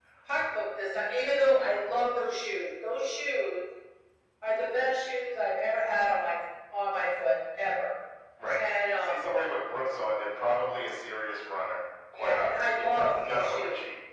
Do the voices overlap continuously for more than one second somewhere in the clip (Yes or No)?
Yes